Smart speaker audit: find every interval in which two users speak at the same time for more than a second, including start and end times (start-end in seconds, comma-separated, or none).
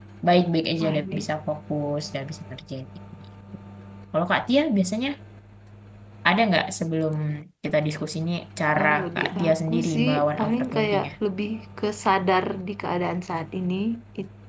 8.8-11.1